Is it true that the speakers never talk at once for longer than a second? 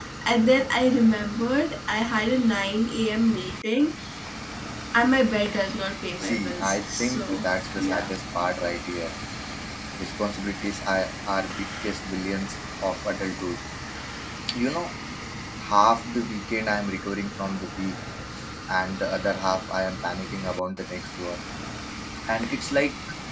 No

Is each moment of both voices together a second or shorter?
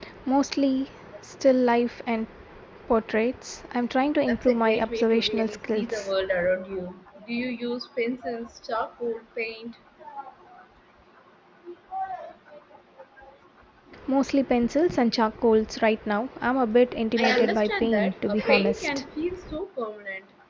No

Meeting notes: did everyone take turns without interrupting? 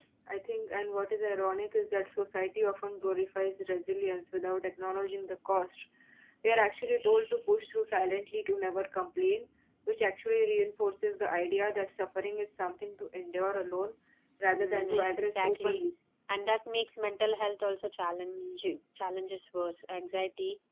No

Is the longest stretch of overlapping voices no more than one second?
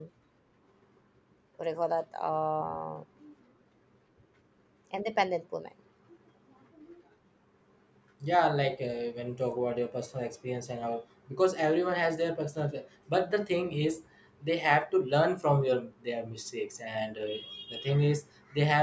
Yes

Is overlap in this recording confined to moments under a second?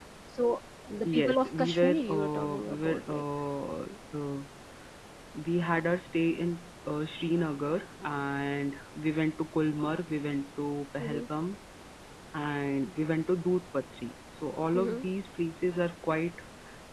No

